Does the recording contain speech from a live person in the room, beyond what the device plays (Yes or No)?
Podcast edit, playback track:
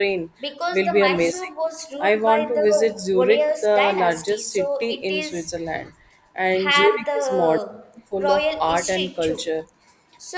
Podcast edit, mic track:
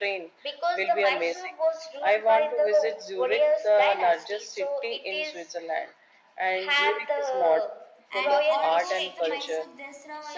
Yes